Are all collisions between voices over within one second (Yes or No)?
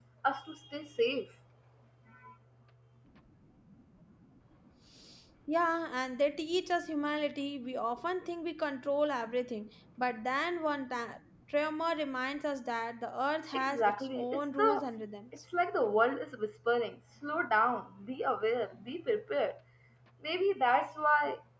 No